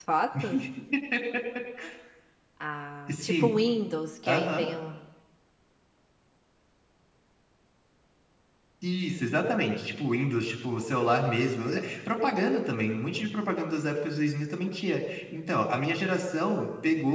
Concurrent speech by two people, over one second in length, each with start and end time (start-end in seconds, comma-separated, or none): none